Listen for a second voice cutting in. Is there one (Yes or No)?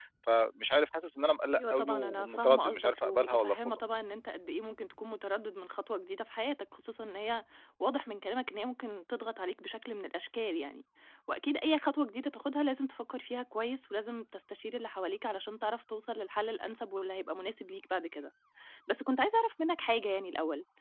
Yes